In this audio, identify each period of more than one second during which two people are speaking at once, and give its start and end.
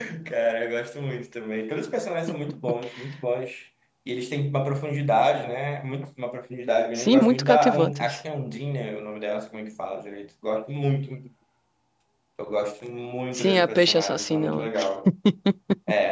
7.0-8.2, 13.3-14.7

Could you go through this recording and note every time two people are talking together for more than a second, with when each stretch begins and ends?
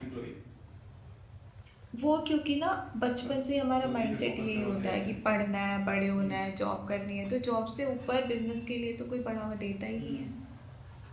3.9-5.1

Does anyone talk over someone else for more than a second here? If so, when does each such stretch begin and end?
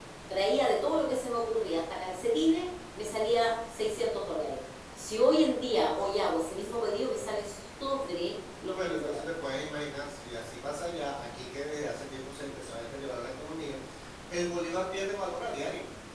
none

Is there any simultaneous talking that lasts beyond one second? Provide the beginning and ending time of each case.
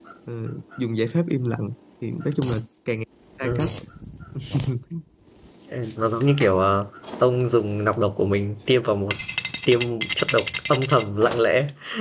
none

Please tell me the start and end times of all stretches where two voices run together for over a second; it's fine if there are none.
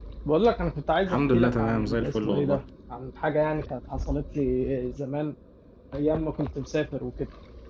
1.1-2.6

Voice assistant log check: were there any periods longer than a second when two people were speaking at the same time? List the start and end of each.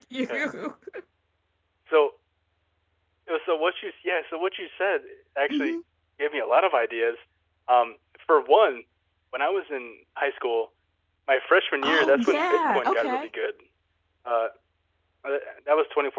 11.8-13.3

